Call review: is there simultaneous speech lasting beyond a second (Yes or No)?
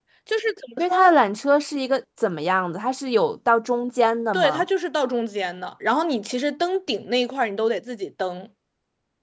No